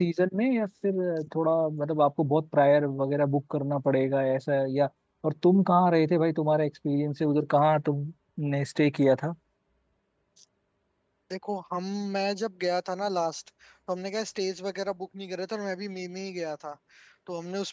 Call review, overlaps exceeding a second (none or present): none